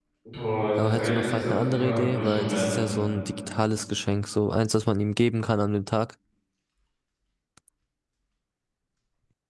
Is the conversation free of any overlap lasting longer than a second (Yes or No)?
No